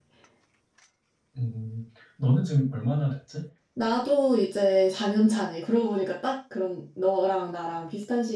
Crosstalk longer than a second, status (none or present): none